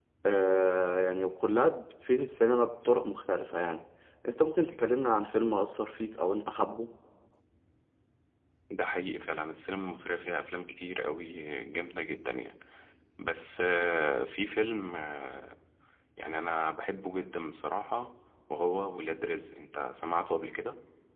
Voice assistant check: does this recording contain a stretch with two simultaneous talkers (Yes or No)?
No